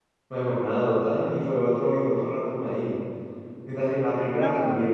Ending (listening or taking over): listening